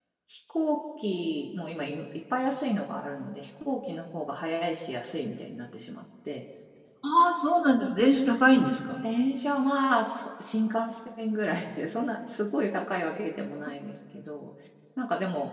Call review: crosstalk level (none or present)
none